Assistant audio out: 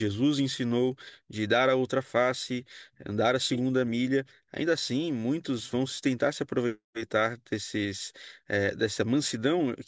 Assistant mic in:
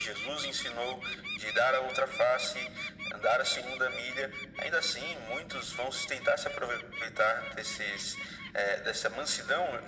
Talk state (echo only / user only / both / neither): echo only